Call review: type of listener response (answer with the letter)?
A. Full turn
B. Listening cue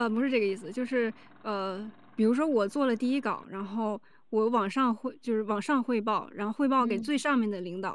B